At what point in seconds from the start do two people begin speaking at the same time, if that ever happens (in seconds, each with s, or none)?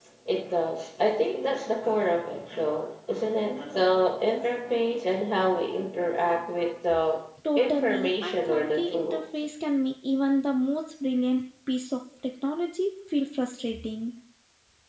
7.6 s